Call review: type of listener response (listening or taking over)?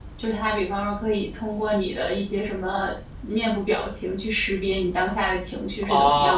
taking over